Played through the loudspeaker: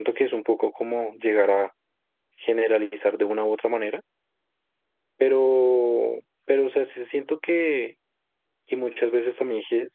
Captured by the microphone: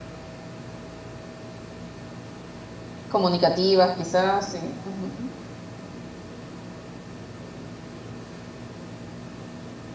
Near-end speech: present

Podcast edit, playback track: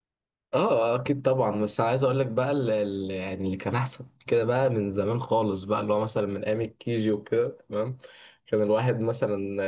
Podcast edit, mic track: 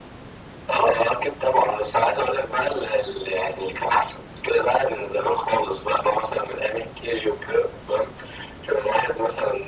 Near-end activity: none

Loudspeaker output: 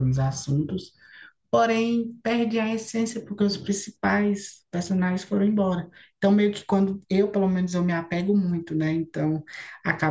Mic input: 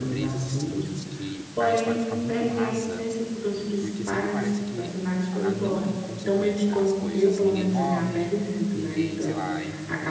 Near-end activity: present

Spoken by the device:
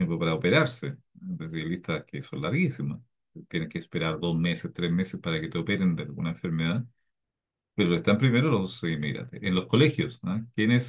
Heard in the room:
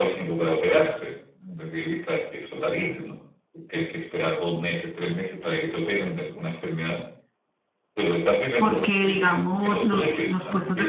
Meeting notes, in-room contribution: present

